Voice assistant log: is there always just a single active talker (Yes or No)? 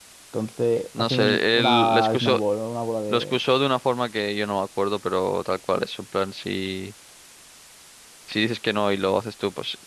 No